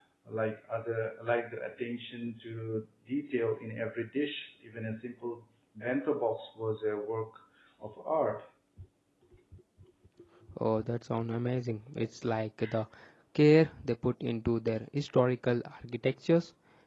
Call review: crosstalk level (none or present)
none